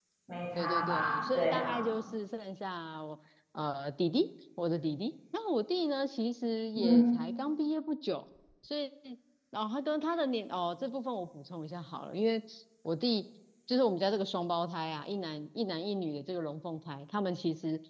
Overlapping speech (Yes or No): Yes